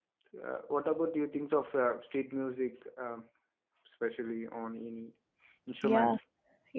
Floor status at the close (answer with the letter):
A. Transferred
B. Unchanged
A